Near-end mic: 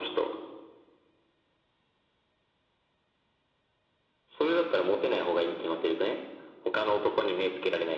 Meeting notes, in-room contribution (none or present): none